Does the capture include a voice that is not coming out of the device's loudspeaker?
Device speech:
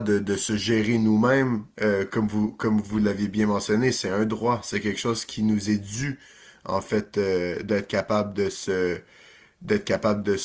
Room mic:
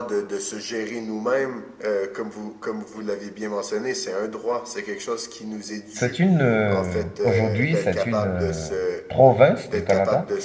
Yes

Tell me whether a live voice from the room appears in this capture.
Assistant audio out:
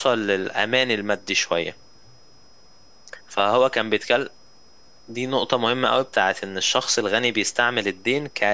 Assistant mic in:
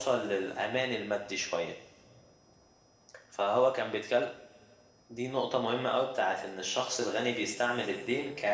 No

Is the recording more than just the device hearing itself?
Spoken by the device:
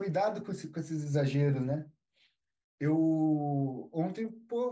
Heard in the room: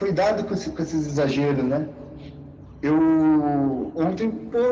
No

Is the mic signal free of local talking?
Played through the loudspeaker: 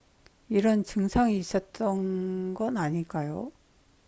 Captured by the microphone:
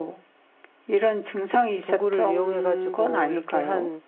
No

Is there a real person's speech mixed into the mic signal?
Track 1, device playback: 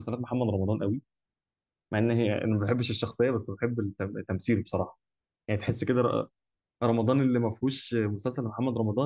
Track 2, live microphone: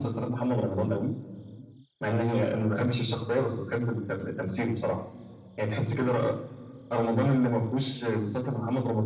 No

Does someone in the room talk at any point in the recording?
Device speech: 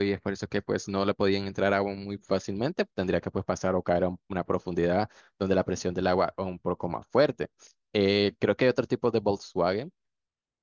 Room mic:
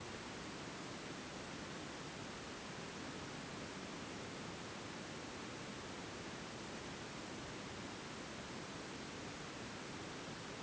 No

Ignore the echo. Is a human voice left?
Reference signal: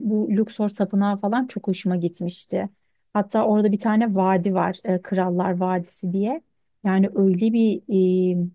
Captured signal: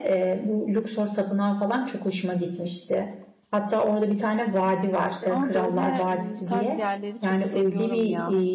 Yes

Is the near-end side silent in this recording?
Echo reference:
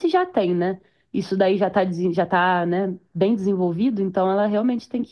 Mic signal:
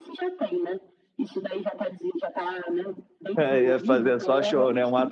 No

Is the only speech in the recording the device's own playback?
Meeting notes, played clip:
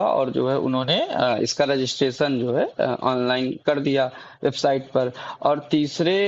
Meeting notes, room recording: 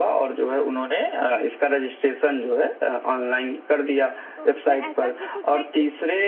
No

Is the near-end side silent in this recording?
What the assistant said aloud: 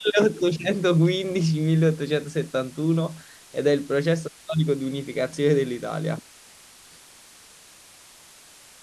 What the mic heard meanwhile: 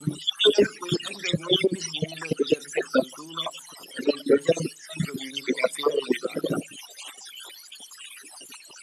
Yes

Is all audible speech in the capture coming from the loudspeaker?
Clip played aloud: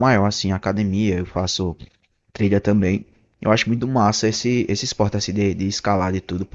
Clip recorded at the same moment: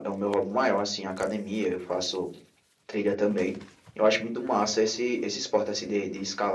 Yes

